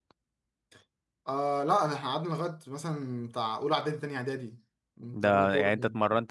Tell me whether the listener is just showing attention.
No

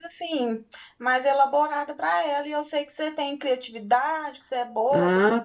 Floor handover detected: Yes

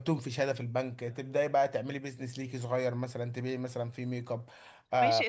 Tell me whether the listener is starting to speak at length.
Yes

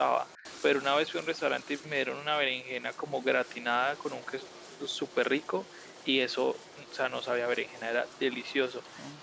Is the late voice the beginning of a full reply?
No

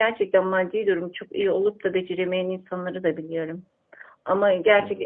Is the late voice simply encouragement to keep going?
Yes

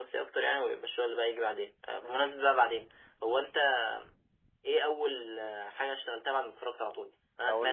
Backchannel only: Yes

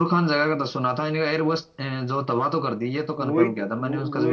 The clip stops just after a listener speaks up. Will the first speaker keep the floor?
No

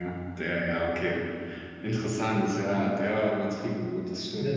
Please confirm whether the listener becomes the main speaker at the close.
Yes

